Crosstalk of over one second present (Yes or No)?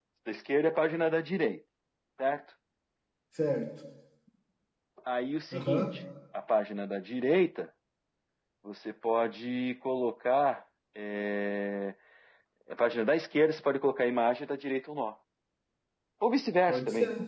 No